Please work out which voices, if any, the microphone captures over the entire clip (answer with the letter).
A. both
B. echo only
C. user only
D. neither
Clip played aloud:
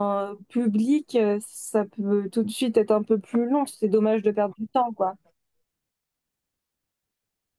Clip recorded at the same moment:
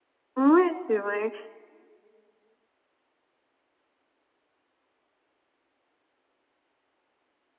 C